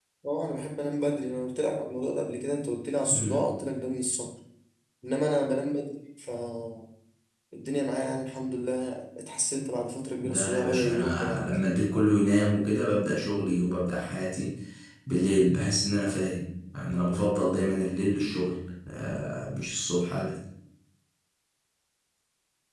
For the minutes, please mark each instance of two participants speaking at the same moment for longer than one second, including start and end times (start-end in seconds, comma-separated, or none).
10.2-11.5